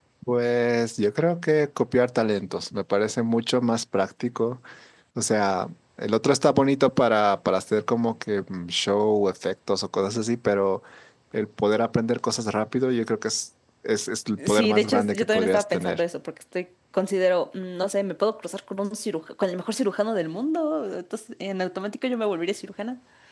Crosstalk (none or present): present